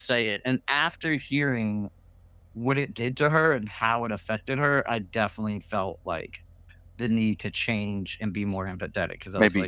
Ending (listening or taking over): taking over